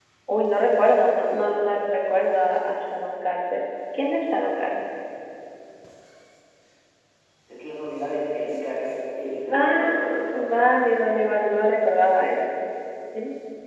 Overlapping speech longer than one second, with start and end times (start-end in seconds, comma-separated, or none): none